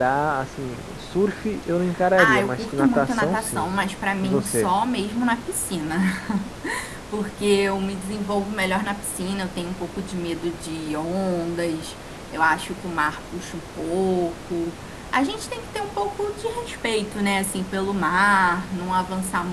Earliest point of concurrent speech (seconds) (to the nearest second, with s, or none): 2 s